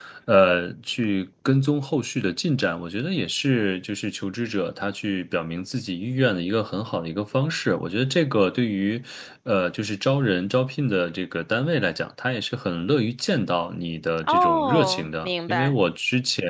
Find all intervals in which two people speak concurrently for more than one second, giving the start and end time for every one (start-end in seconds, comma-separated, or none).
14.2-15.8